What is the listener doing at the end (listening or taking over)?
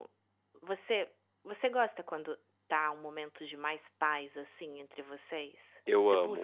taking over